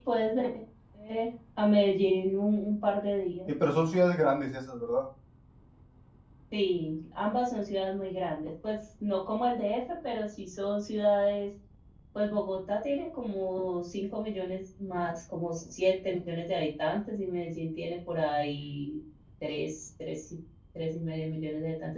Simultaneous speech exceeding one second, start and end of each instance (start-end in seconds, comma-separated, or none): none